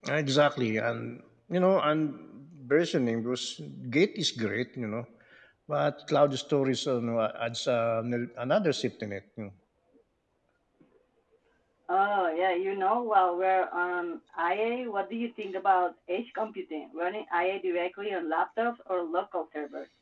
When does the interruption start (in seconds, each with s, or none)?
none